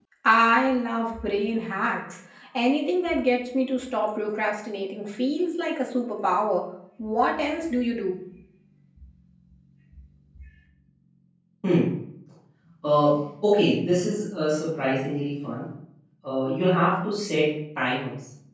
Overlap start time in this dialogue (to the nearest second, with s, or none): none